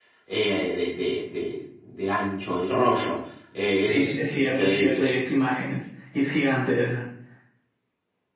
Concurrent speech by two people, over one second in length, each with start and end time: 3.8-5.0

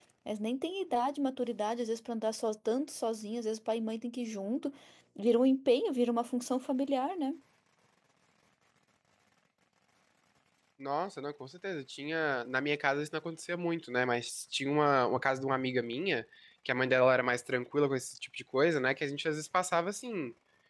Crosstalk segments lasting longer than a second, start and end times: none

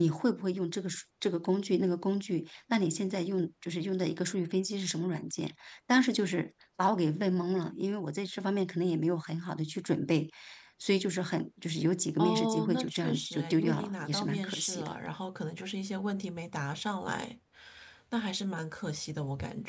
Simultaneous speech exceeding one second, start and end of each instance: 12.2-15.0

